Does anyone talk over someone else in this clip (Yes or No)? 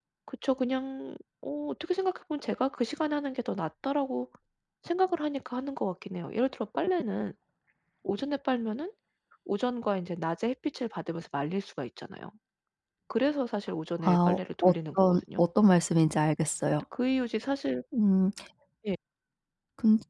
Yes